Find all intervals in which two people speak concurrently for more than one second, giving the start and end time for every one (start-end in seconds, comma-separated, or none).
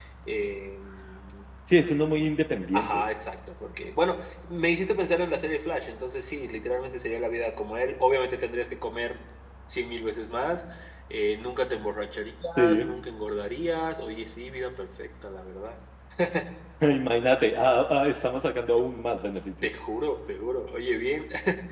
none